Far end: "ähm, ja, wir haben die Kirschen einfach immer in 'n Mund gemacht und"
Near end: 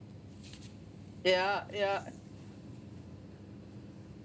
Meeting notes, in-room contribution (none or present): present